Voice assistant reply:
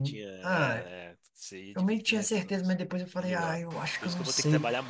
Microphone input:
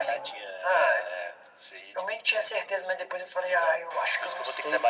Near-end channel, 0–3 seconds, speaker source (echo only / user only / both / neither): echo only